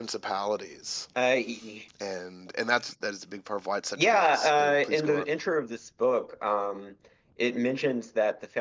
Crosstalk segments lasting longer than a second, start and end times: 4.0-5.2

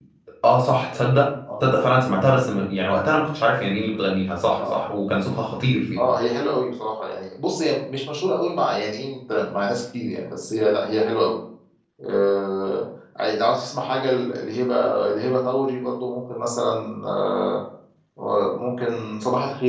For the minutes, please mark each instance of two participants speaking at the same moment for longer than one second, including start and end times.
none

